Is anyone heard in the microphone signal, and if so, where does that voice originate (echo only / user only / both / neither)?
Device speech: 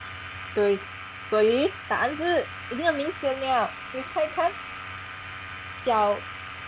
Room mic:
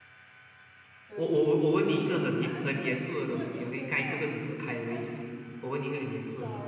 both